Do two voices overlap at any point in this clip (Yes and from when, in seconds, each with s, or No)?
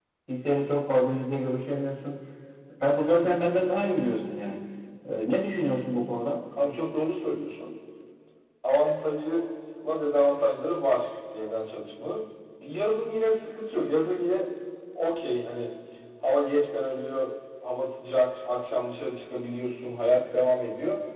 No